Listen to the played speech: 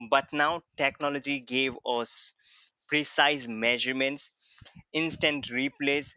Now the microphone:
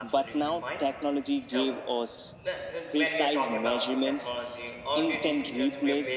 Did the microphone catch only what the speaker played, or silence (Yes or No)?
No